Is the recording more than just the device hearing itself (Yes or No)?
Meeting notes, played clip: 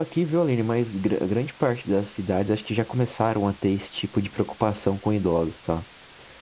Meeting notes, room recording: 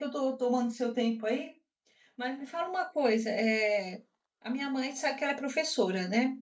Yes